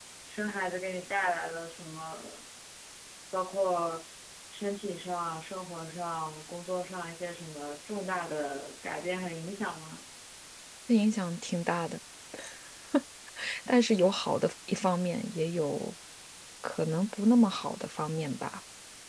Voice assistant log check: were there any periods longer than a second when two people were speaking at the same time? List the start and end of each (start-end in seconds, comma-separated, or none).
none